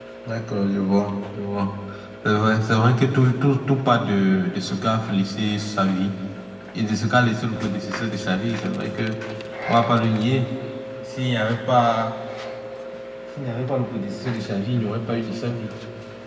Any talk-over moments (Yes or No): No